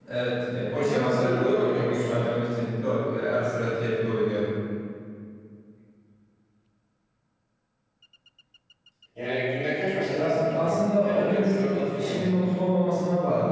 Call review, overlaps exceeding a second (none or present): present